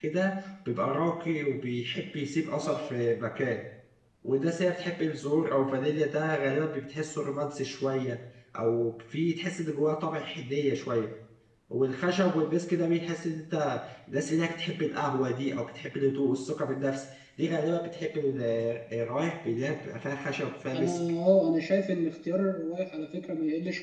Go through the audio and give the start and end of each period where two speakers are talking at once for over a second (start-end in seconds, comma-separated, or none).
none